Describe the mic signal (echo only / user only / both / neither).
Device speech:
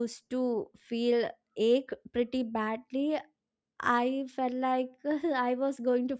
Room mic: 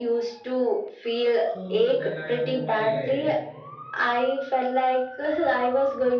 both